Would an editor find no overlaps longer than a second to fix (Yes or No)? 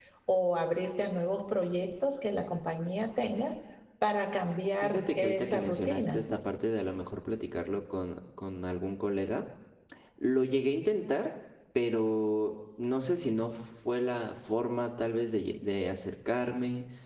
No